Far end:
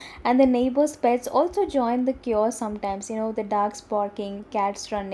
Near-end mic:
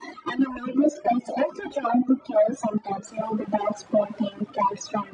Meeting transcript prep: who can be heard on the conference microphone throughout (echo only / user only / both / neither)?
echo only